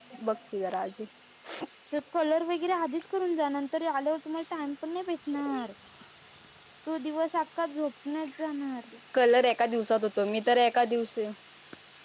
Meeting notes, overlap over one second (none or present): none